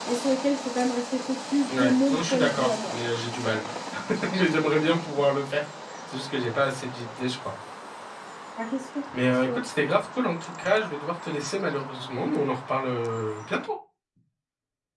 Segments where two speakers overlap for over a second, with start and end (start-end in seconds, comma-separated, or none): 1.7-3.0